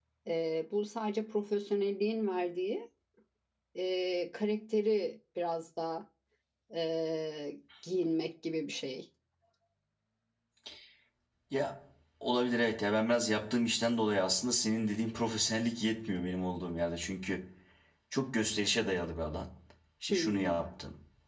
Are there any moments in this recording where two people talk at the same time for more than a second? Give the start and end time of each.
none

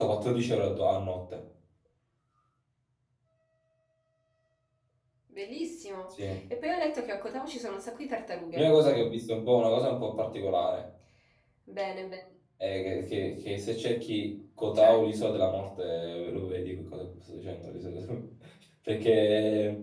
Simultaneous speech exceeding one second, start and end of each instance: none

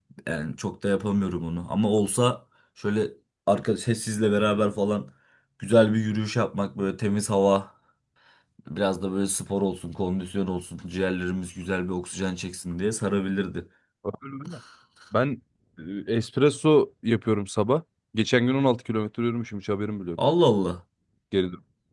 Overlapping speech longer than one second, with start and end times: none

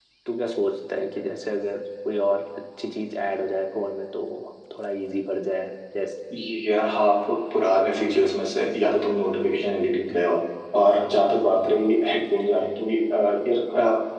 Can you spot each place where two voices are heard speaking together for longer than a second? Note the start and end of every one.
none

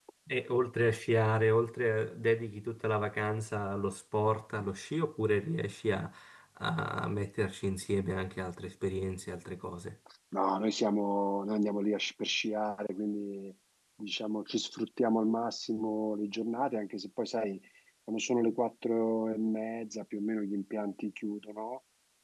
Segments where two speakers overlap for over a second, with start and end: none

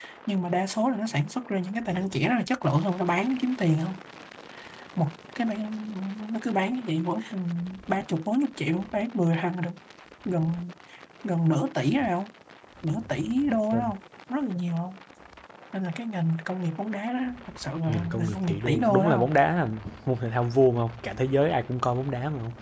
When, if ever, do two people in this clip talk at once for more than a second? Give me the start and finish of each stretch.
17.9-19.3

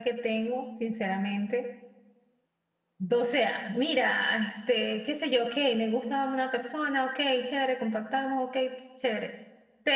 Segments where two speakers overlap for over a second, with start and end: none

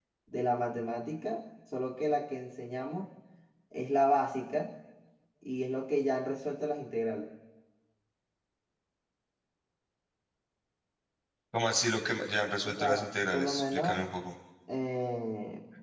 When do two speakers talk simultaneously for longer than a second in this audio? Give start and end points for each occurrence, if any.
12.6-14.0

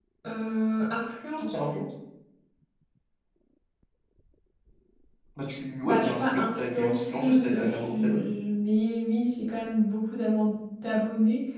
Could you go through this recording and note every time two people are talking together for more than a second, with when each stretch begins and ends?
5.8-8.2

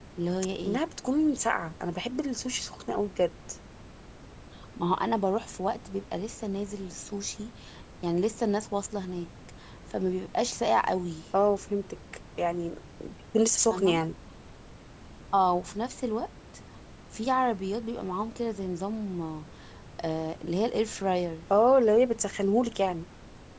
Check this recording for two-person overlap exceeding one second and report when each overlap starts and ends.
none

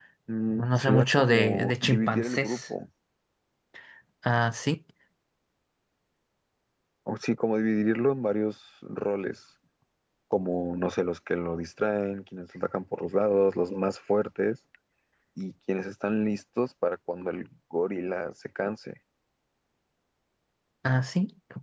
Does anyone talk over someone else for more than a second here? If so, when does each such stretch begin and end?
0.5-2.6

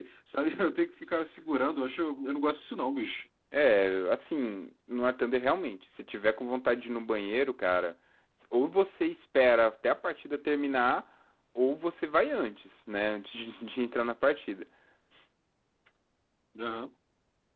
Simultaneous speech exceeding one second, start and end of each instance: none

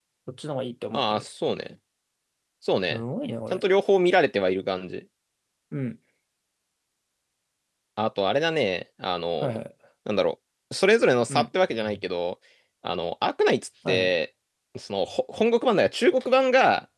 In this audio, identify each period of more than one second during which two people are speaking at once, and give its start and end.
none

